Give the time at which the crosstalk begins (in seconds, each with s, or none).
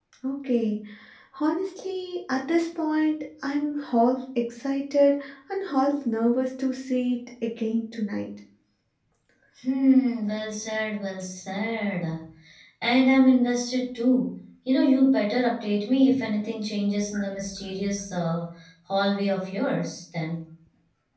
none